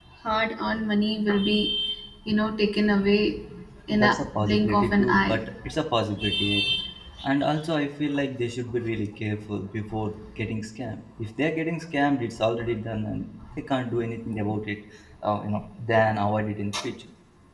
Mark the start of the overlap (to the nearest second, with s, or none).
4 s